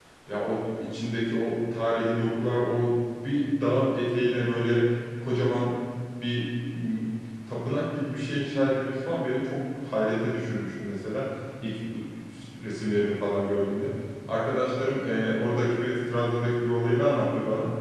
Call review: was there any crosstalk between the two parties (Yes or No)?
No